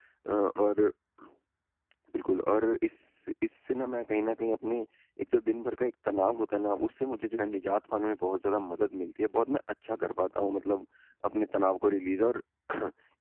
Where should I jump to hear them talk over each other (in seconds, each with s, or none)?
none